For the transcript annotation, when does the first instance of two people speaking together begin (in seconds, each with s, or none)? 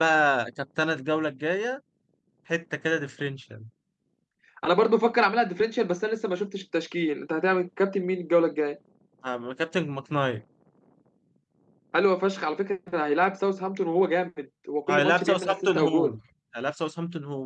14.9 s